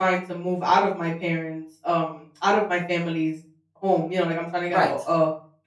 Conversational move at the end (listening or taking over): listening